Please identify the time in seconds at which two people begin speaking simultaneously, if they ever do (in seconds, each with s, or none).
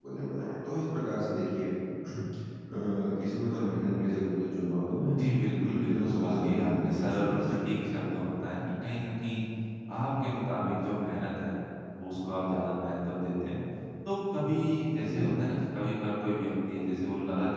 5.6 s